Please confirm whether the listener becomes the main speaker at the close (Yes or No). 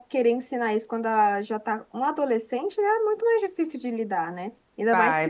No